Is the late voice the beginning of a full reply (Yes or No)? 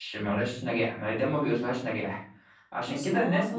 Yes